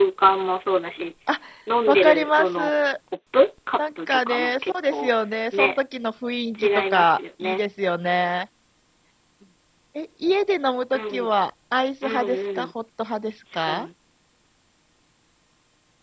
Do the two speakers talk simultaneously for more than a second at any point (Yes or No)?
Yes